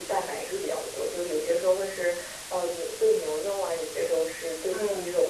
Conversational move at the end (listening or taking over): taking over